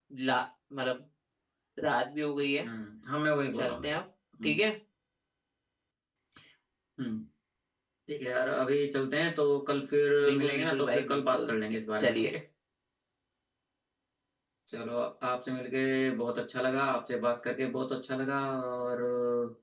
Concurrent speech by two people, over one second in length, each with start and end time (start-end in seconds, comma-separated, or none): 10.2-11.5